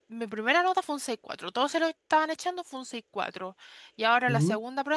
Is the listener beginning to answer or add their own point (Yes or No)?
No